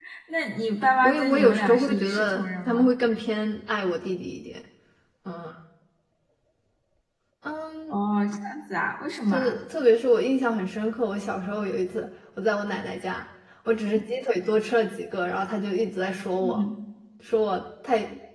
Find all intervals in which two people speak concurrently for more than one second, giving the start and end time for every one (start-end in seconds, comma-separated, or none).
1.0-2.9